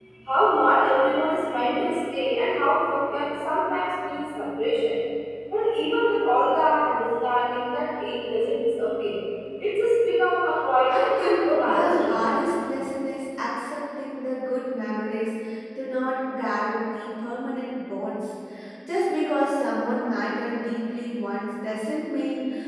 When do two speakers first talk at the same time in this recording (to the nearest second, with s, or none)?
11 s